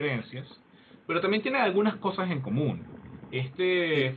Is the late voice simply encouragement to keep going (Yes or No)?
Yes